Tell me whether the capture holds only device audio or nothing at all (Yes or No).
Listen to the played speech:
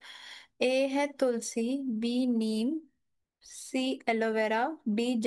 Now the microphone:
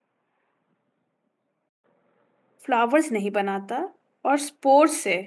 No